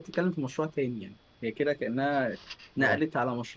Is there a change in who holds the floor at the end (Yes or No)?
No